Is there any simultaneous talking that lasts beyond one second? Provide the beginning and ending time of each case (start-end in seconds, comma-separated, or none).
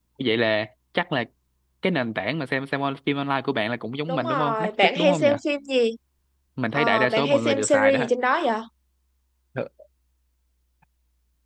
4.1-5.3, 6.7-8.1